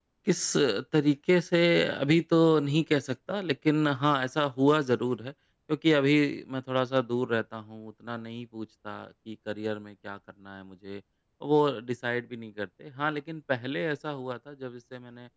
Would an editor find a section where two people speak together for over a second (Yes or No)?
No